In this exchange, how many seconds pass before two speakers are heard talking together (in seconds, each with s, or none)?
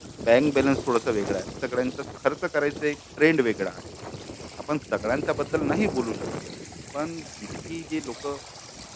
none